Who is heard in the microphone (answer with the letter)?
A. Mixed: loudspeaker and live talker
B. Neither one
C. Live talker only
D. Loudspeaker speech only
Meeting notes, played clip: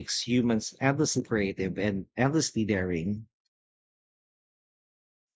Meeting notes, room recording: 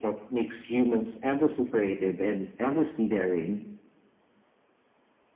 D